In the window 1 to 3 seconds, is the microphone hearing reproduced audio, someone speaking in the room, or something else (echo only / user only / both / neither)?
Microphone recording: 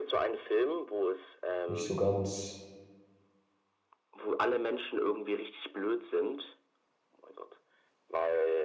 both